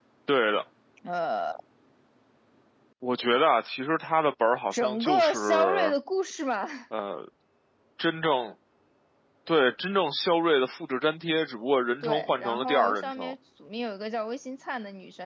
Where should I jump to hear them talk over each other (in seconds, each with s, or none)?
4.7 s